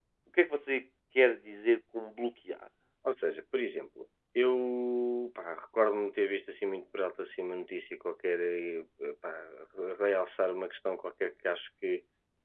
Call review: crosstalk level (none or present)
none